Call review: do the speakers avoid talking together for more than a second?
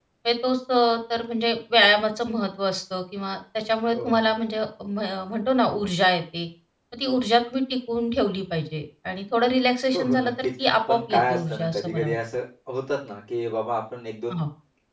No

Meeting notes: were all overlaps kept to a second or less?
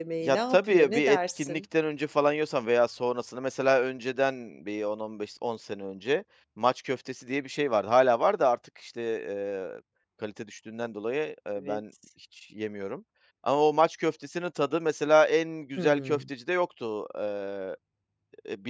No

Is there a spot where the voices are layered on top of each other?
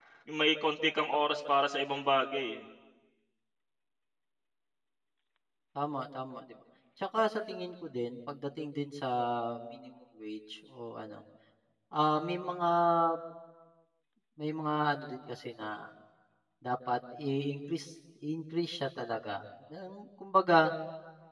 No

